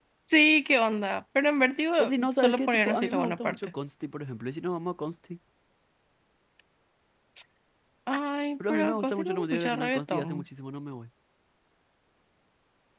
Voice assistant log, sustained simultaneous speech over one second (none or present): present